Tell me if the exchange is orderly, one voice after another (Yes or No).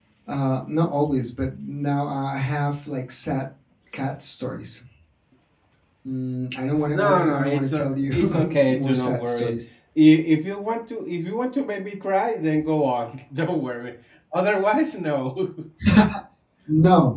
No